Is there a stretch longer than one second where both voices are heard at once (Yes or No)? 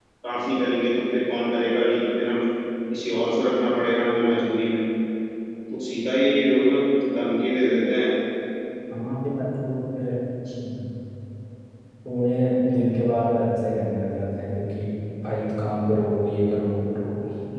No